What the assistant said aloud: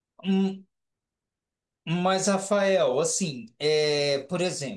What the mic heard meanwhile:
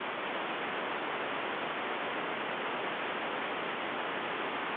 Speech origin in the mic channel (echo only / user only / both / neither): neither